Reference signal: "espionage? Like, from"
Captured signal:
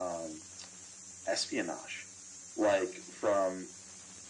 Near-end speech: none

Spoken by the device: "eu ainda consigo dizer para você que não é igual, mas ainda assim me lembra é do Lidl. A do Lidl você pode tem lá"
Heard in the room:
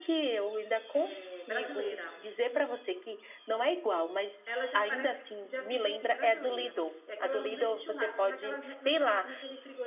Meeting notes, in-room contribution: present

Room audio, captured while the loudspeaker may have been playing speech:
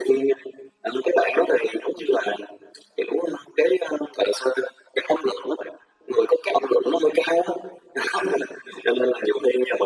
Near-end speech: none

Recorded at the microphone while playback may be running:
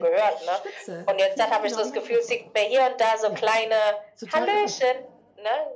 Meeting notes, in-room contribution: present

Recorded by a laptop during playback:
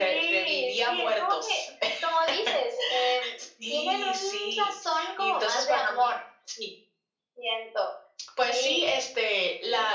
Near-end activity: none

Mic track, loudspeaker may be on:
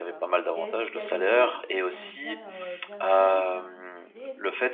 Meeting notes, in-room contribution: present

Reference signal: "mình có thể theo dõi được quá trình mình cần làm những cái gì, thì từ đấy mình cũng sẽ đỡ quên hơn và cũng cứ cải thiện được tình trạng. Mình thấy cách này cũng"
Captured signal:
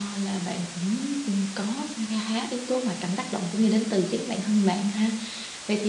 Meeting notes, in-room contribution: present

